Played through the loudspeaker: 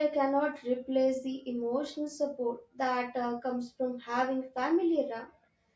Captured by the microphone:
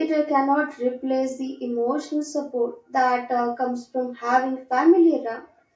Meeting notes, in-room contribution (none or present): none